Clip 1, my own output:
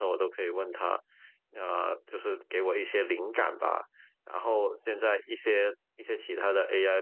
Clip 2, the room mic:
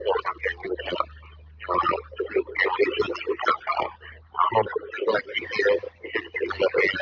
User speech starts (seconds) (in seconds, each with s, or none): none